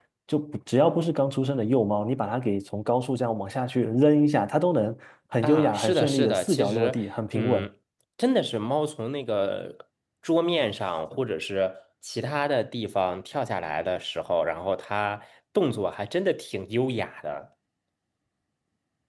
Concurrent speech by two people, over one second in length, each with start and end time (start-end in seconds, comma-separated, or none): 5.4-7.0